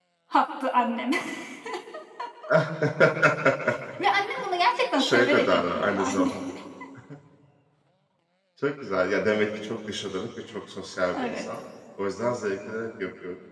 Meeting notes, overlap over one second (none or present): present